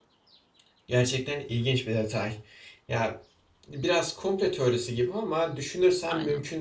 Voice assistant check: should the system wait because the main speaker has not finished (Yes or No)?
Yes